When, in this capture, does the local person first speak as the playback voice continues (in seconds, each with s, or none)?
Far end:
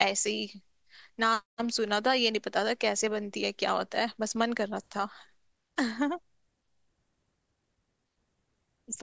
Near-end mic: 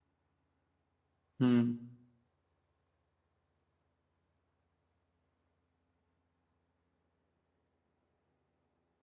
1.4 s